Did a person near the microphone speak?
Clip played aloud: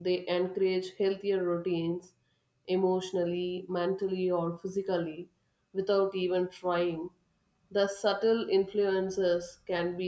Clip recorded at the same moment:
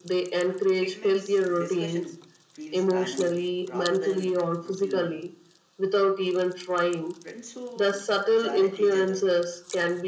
Yes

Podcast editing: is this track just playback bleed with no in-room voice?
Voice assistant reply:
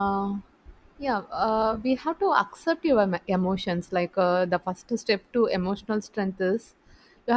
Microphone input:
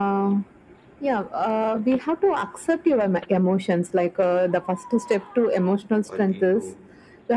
No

